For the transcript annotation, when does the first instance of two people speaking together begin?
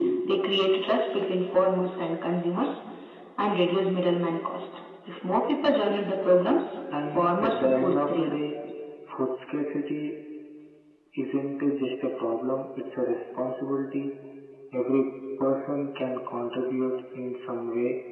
6.9 s

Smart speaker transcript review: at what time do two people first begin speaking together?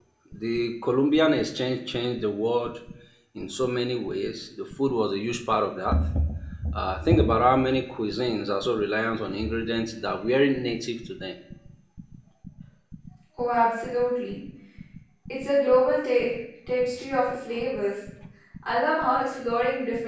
none

